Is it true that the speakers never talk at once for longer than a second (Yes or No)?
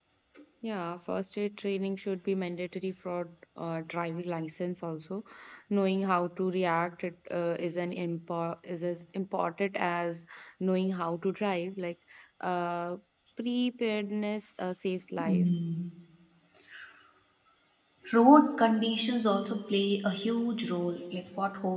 Yes